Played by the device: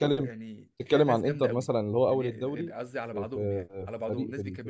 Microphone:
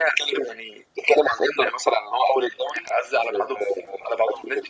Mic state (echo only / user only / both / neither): echo only